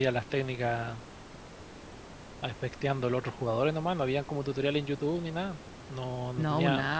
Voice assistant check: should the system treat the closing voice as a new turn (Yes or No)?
Yes